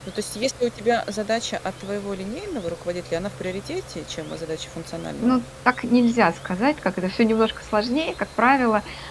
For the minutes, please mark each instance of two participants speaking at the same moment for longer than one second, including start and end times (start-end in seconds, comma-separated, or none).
none